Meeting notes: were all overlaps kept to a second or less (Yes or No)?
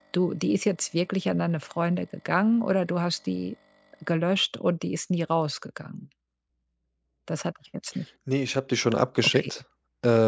Yes